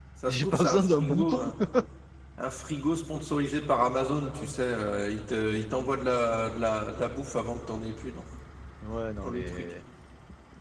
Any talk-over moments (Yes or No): Yes